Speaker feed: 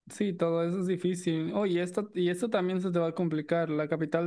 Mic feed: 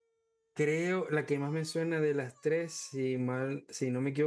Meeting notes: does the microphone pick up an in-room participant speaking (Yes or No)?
Yes